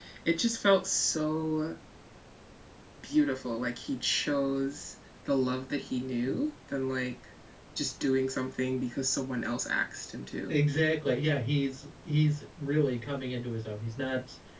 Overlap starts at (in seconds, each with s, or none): none